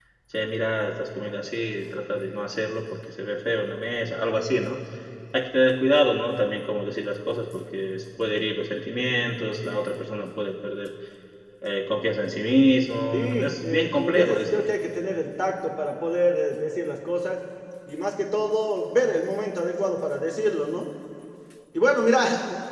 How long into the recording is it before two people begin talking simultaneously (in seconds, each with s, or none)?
13.1 s